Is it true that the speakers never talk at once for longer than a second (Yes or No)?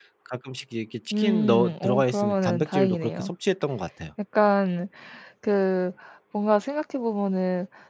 No